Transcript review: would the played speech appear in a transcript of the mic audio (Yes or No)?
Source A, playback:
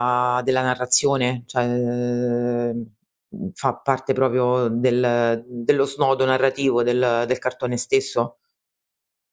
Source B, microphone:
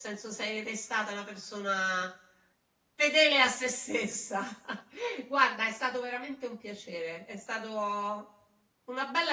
No